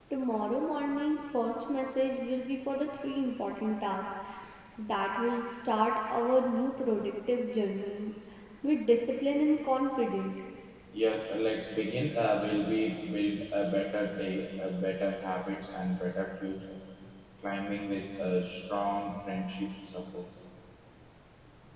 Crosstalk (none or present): none